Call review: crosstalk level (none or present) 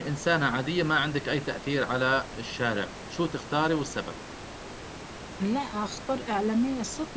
none